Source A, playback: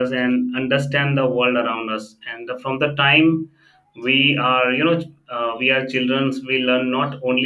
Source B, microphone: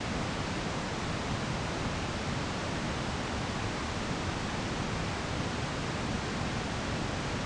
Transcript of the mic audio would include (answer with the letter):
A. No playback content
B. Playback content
A